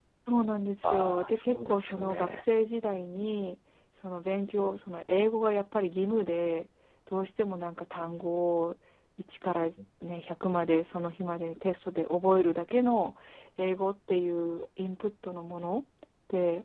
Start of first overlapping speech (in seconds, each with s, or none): 0.8 s